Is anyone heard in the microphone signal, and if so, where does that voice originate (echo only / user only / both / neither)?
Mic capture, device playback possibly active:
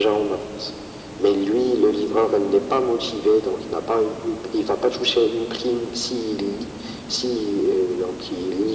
echo only